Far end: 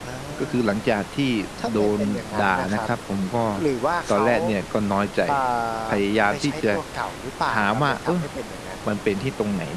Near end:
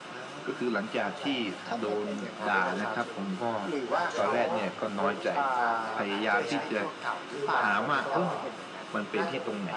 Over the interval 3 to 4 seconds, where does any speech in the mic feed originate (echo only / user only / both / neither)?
both